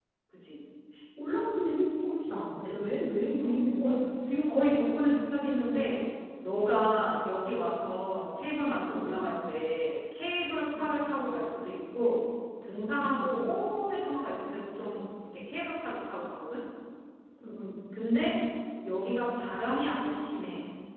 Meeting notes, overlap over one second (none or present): none